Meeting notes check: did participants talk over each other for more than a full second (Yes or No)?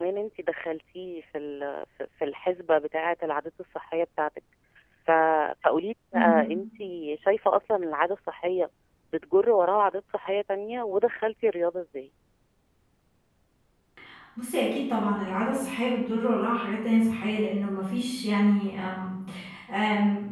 No